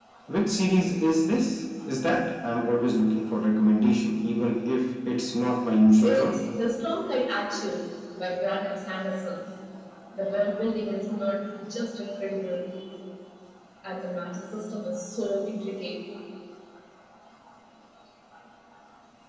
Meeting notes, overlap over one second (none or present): none